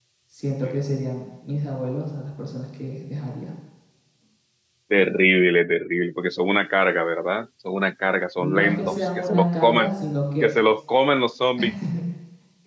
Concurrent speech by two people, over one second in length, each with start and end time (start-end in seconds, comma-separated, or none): 8.4-9.9